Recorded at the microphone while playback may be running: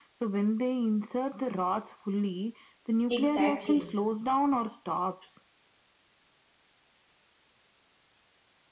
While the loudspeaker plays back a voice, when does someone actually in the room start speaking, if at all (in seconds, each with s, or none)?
3.1 s